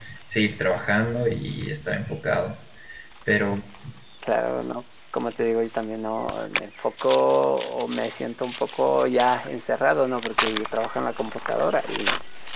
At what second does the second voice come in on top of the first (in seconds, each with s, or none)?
none